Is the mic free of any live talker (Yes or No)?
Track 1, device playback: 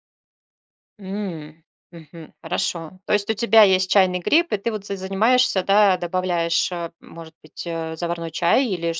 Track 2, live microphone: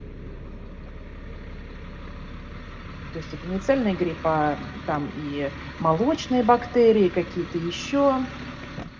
No